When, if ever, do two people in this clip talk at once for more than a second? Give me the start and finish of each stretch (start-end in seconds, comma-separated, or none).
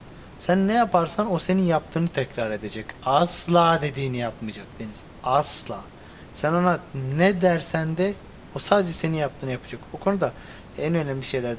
none